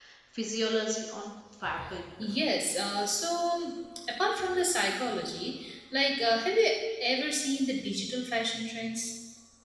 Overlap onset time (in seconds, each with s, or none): none